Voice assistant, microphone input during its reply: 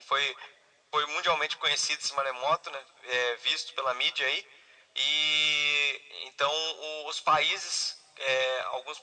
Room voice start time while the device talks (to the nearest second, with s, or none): none